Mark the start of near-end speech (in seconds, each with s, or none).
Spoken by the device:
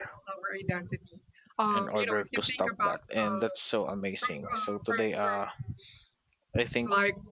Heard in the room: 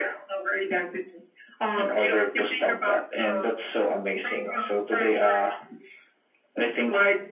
none